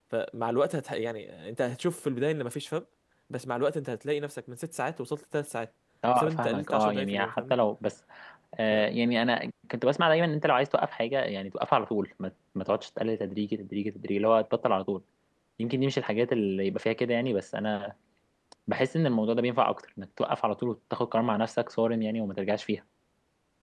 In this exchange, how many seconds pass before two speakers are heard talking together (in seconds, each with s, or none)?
6.2 s